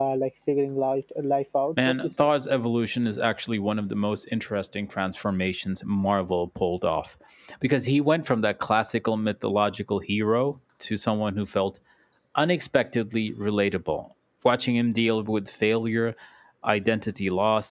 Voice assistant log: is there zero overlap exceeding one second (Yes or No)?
Yes